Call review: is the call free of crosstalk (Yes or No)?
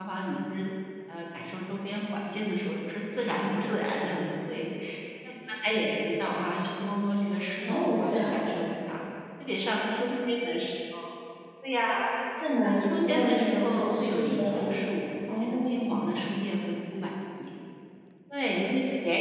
No